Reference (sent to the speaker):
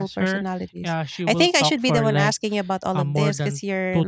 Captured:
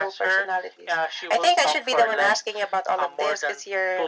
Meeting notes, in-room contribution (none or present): none